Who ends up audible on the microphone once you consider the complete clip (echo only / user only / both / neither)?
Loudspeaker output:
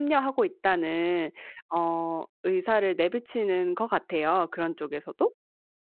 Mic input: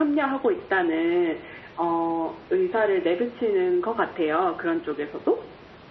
echo only